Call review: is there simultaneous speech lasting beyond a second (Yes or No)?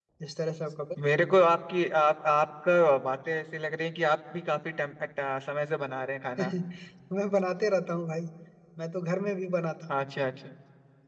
No